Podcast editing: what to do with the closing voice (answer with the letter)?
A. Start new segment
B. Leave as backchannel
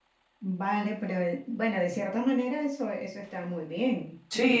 A